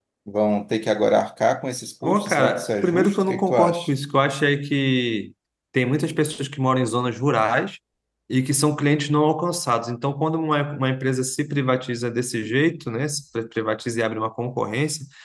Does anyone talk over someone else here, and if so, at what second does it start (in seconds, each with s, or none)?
2.0 s